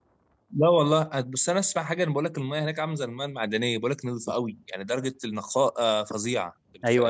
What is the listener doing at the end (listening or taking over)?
taking over